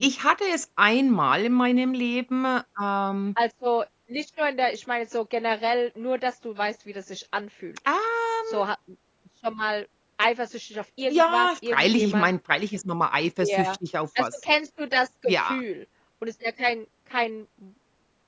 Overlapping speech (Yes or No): Yes